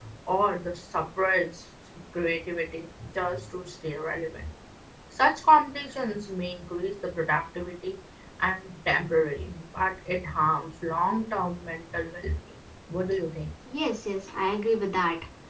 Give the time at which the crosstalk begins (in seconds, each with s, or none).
none